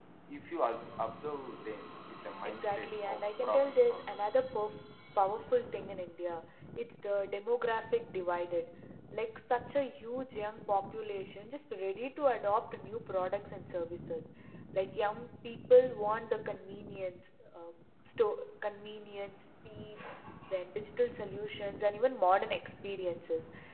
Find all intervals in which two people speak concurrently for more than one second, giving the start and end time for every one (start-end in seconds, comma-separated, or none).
2.5-4.2